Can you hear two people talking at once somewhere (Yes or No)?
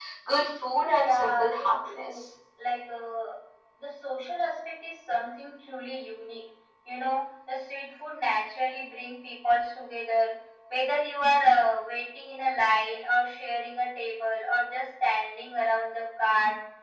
Yes